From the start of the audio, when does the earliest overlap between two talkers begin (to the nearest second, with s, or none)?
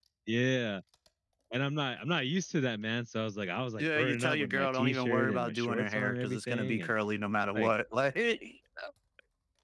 4 s